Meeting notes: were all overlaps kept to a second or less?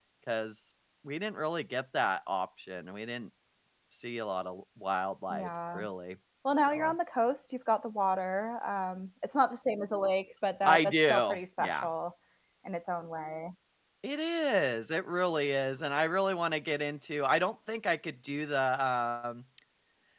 No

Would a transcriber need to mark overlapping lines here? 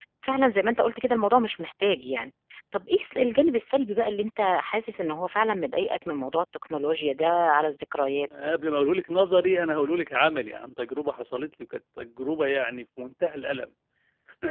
No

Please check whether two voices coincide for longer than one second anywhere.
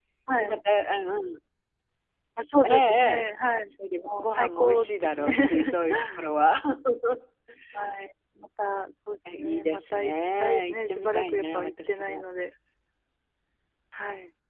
Yes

